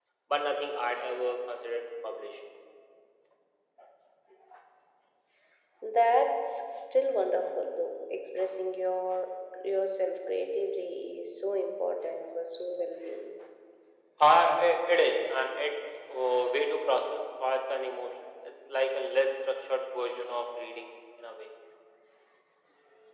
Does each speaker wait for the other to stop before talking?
Yes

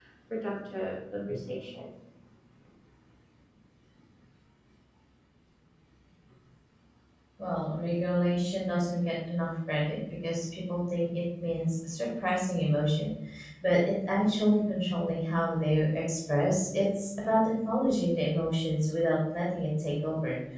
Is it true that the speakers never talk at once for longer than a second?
Yes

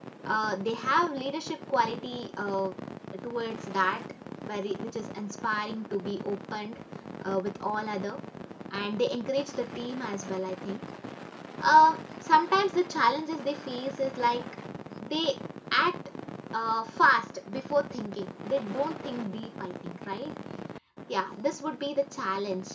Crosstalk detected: No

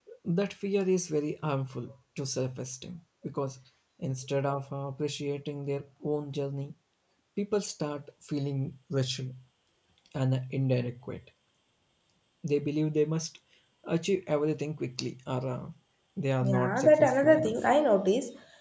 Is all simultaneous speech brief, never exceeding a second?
No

